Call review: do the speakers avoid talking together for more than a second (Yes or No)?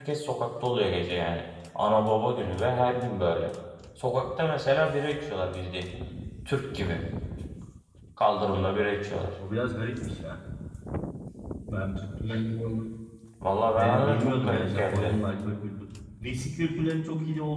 No